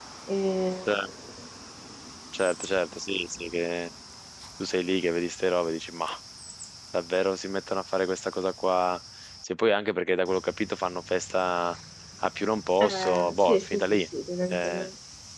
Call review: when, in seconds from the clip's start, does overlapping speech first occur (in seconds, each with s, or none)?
12.8 s